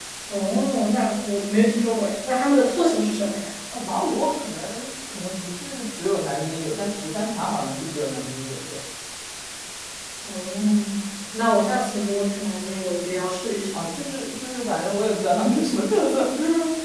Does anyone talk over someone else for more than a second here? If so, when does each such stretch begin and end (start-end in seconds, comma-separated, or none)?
none